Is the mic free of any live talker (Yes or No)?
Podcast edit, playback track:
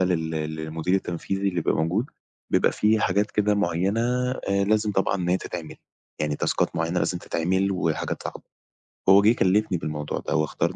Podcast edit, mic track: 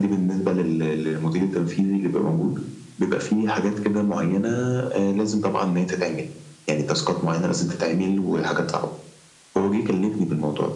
Yes